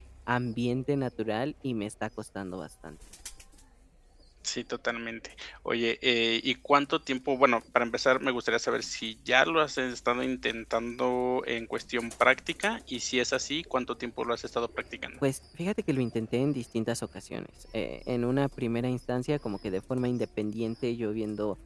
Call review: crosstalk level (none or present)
none